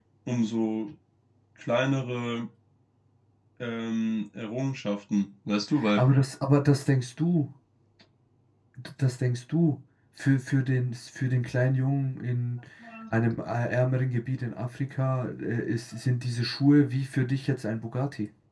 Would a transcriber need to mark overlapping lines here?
No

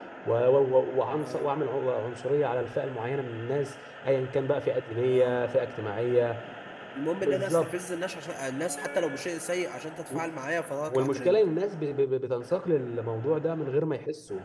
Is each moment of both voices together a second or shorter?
Yes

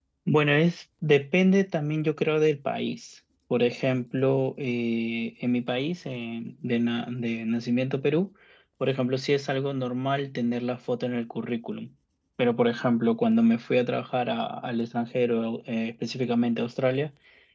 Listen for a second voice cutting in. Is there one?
No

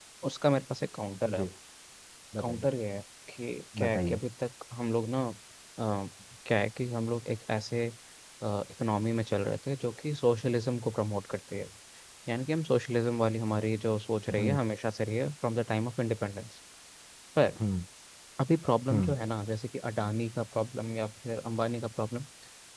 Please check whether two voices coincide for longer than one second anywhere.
No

